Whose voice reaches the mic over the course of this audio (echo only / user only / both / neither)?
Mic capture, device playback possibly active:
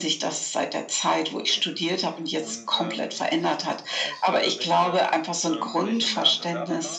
both